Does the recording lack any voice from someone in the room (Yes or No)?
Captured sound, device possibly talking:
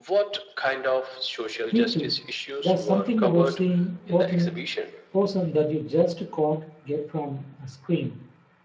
No